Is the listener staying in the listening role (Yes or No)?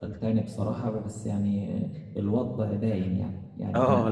No